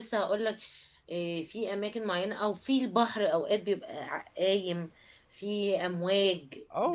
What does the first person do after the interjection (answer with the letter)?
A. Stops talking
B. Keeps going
A